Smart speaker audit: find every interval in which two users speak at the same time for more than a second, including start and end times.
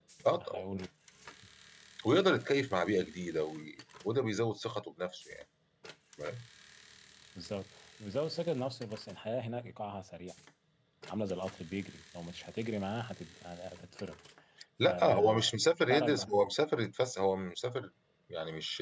14.8-16.2

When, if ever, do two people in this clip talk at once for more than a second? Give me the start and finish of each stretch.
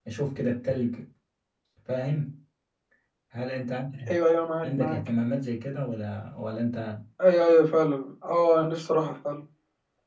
none

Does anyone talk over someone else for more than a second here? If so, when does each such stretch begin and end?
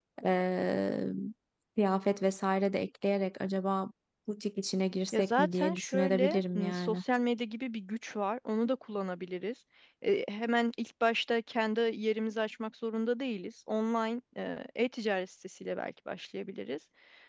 5.1-7.0

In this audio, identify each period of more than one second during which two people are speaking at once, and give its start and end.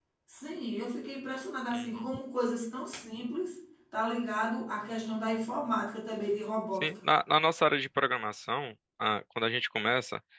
none

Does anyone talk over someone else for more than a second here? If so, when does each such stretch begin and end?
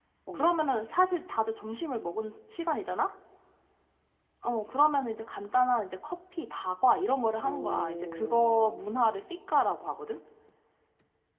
7.4-8.8

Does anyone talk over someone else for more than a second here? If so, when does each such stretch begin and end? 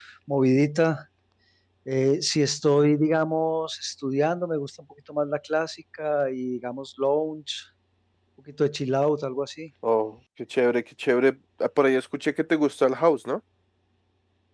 none

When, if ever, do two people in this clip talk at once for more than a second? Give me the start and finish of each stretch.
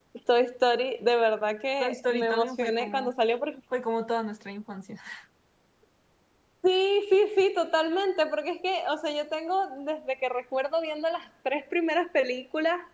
1.8-3.1

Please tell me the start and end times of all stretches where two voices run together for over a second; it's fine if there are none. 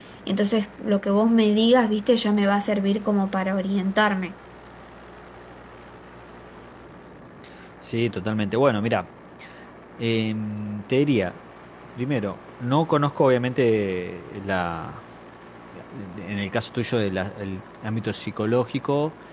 none

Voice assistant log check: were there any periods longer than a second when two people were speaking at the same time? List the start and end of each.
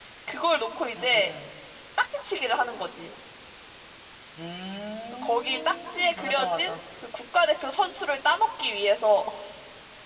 5.2-6.8

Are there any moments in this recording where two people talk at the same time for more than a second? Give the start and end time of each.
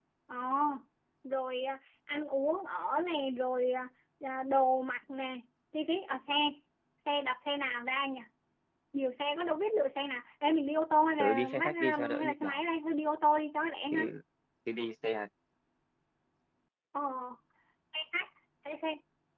11.2-12.6

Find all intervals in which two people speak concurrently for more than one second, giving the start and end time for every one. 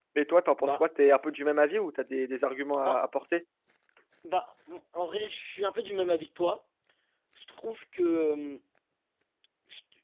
none

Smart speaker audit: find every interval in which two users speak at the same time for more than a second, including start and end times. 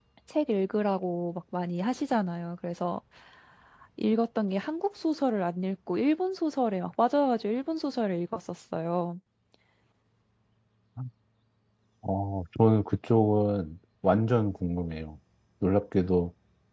none

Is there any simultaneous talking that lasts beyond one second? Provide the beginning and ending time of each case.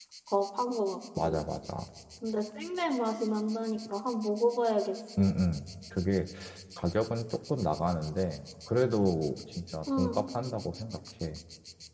none

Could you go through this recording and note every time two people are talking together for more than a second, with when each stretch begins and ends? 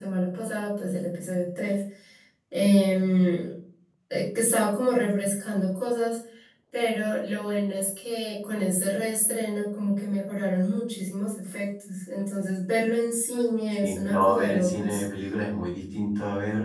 13.8-15.1

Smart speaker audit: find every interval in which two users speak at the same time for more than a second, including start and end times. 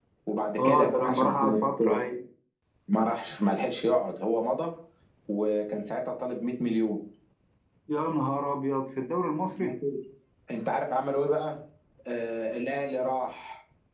0.6-1.8

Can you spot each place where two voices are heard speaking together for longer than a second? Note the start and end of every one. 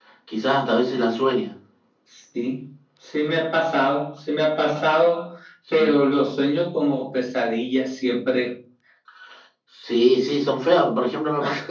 none

